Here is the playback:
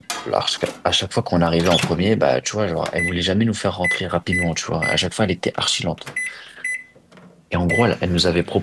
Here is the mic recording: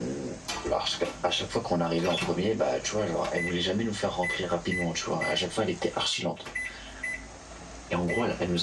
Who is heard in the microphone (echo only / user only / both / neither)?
echo only